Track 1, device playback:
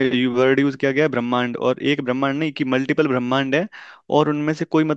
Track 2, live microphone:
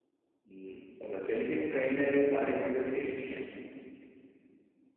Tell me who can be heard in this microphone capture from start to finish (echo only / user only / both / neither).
user only